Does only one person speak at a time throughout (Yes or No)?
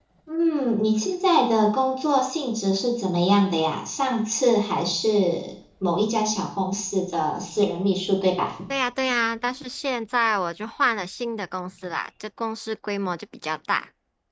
Yes